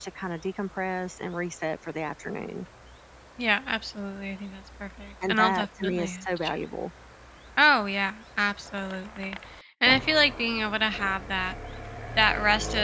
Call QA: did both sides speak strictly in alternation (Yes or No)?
No